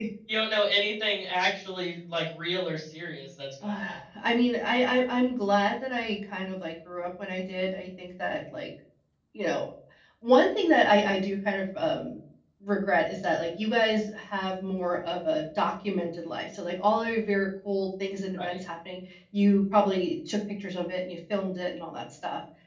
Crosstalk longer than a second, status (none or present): none